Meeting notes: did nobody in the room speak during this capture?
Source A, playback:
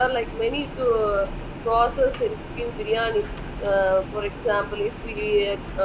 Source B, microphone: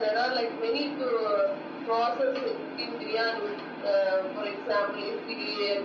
Yes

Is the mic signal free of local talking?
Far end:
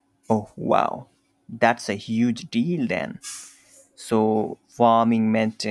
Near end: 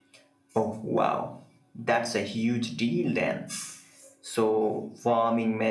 Yes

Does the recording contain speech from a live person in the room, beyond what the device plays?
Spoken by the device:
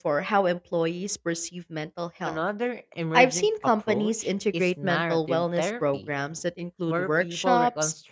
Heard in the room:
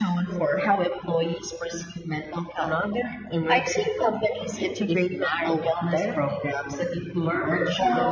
No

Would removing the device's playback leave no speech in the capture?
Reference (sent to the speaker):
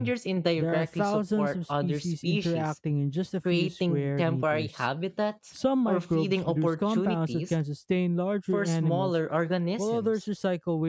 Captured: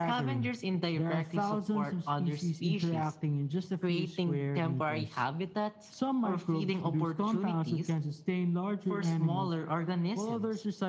Yes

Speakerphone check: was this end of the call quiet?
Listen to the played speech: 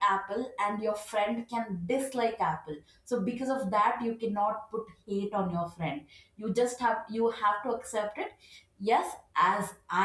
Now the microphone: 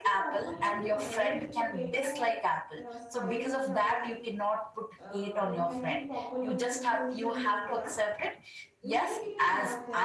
No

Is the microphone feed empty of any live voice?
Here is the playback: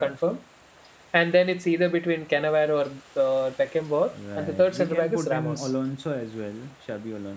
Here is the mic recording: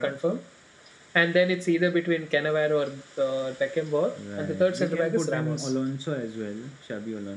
Yes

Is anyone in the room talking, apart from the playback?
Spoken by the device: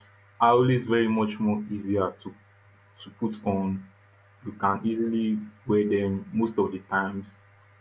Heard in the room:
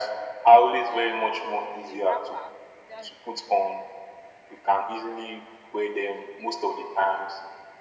Yes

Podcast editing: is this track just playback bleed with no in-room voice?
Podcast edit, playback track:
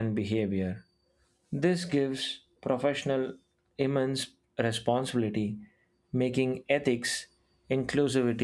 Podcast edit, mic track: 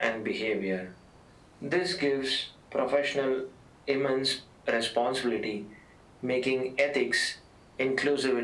Yes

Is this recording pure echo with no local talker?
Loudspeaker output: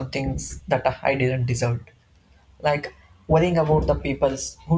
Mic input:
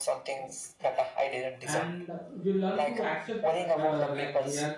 No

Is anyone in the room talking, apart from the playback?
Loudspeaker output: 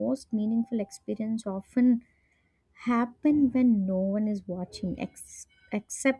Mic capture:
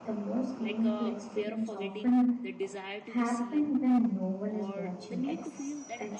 Yes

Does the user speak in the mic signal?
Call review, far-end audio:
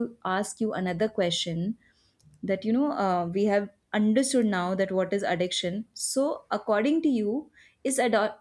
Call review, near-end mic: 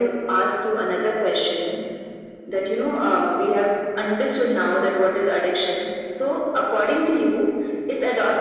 No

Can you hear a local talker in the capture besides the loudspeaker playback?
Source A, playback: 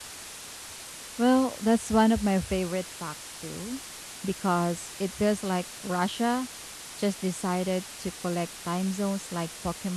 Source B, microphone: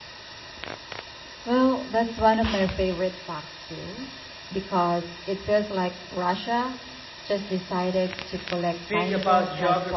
Yes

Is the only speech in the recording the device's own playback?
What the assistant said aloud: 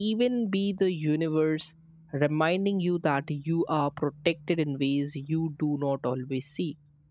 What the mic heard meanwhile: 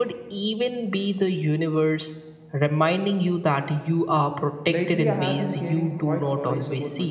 No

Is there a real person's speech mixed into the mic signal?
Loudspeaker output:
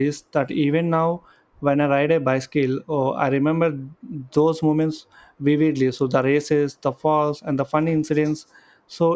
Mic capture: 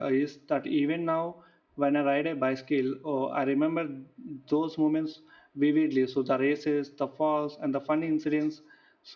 No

